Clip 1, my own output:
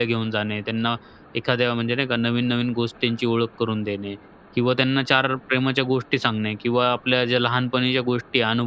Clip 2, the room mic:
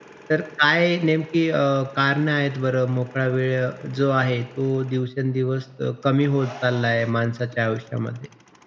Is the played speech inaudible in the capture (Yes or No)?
Yes